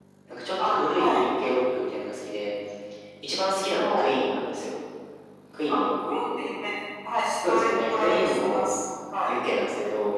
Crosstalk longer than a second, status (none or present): present